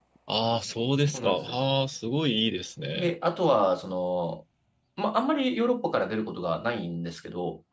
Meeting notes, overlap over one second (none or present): none